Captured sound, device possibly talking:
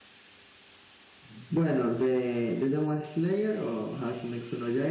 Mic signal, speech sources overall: user only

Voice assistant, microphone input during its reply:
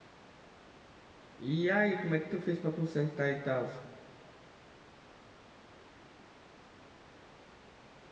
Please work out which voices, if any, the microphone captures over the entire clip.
user only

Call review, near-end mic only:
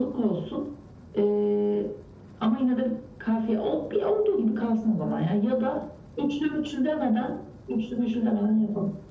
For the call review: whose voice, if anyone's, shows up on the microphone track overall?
echo only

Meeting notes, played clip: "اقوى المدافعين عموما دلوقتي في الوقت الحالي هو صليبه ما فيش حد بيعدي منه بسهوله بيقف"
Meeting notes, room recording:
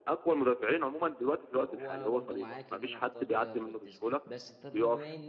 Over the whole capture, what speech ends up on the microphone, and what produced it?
both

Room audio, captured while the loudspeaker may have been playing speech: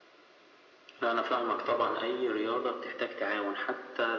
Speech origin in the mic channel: echo only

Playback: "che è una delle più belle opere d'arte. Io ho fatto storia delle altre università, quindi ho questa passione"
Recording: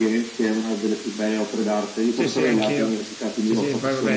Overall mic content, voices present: both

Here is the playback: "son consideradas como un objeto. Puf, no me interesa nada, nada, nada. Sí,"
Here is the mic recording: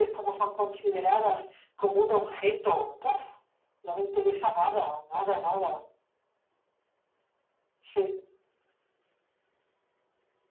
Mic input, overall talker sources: echo only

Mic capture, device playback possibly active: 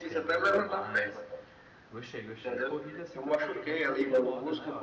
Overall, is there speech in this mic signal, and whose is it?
both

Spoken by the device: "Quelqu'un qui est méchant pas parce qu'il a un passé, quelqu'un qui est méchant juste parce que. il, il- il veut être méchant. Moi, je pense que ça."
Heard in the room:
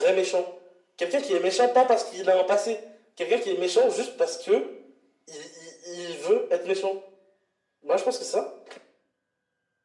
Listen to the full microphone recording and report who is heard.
echo only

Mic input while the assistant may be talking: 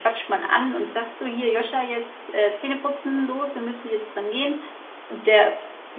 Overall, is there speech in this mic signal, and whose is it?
user only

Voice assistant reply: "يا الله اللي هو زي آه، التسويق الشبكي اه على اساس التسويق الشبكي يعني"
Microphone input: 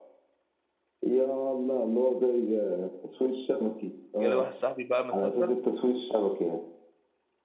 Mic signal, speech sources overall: both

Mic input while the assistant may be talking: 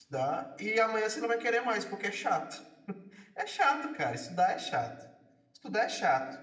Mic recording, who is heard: user only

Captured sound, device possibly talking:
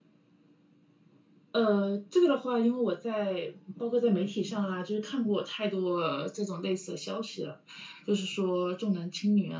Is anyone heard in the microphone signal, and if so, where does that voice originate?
echo only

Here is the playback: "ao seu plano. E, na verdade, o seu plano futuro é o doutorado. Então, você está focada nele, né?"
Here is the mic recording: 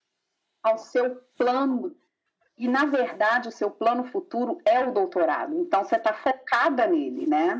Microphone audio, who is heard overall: echo only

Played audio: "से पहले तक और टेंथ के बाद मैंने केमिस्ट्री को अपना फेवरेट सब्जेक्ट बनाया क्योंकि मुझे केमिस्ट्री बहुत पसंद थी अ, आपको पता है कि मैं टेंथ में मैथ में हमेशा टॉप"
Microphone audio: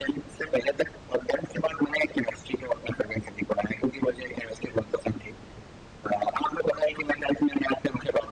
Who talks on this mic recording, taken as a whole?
echo only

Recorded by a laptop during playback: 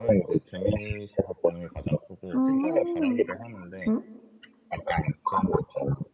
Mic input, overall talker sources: both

